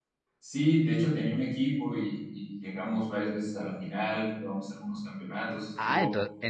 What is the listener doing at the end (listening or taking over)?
taking over